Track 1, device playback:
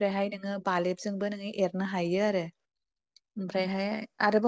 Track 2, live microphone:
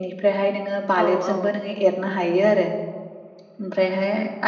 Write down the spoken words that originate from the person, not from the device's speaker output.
औ औ

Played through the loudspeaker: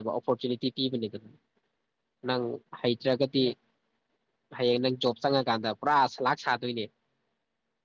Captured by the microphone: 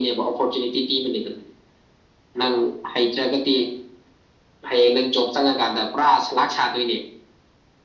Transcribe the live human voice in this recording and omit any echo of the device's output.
none

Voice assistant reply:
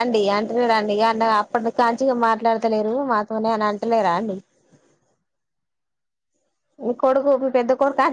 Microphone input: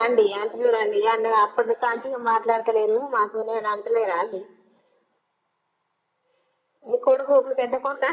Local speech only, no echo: none

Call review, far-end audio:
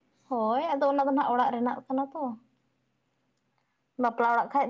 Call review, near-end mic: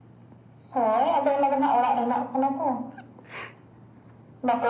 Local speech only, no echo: none

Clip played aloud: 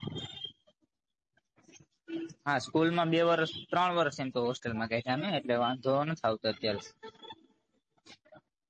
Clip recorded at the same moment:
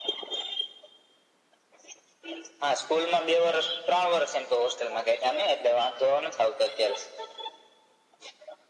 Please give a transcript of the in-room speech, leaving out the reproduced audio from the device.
none

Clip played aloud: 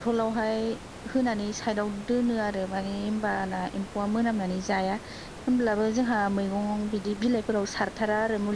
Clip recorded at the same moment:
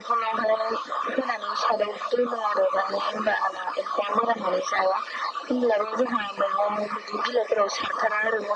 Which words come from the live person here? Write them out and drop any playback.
none

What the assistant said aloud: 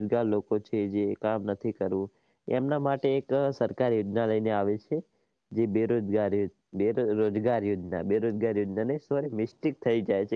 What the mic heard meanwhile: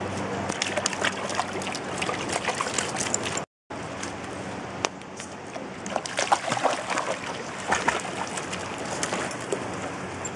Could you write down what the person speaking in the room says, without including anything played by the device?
none

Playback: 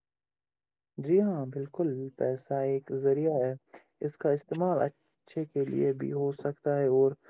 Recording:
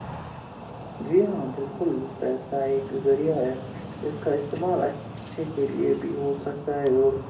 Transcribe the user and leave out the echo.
none

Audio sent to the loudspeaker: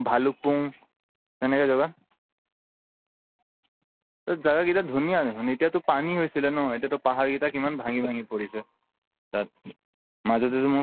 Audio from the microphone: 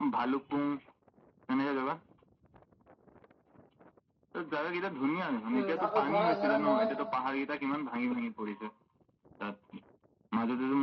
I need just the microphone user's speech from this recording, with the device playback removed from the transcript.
উম ধ ধৰা ধৰা মই

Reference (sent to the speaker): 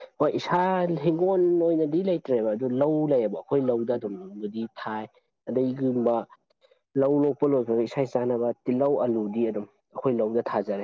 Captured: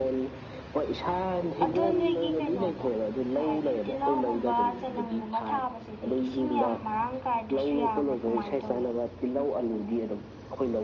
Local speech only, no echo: ꯑꯗꯣ ꯅꯣꯏꯒꯤ ꯀꯩꯅꯣꯗꯣ ꯀꯩ ꯍꯥꯏꯒꯦ ꯇꯤꯜꯍꯧꯒꯨꯝꯕ ꯆꯅꯝꯒꯨꯝꯕ ꯊꯥꯕꯁꯤꯗꯤ ꯏꯁꯤꯡ ꯌꯥꯝ ꯃꯔꯥꯡ ꯀꯥꯏꯗ꯭ꯔꯁꯨ ꯌꯥꯕ꯭ꯔꯥ ꯀꯃꯥꯏꯅ ꯇꯧꯋꯦ

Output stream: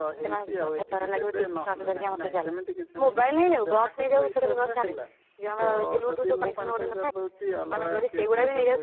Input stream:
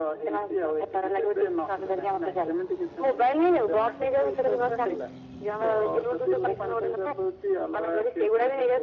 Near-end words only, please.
none

